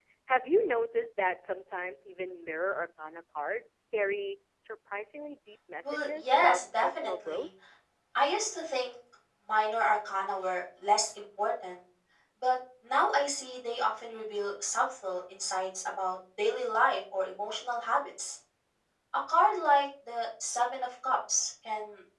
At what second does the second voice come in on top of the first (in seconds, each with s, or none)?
5.8 s